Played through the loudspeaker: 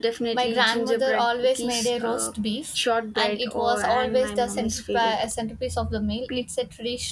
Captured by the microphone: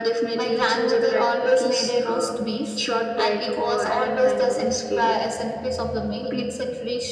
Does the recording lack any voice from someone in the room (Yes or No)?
Yes